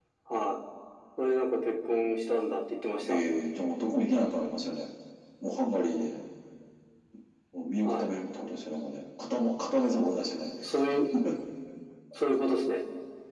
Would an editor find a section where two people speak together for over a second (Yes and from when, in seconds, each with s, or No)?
No